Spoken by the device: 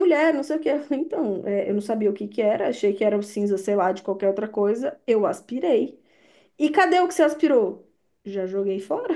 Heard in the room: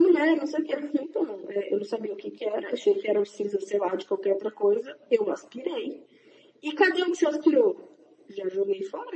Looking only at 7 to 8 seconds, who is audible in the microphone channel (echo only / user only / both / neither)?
echo only